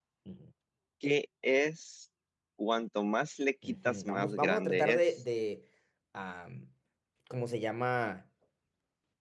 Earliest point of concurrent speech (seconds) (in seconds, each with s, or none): 3.6 s